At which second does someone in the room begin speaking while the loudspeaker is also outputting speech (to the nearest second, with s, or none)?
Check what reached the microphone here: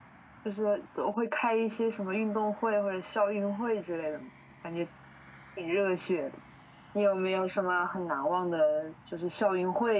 none